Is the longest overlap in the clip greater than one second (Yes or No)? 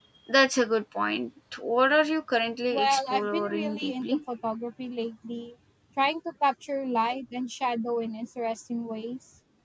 Yes